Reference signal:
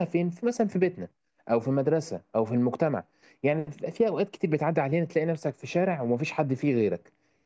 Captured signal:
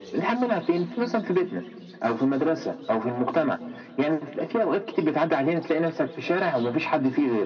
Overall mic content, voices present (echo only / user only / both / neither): echo only